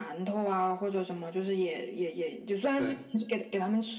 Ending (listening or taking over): listening